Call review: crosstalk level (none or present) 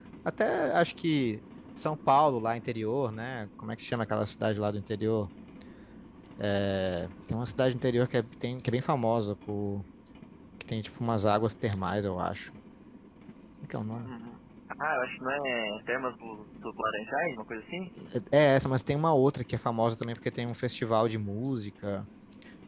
none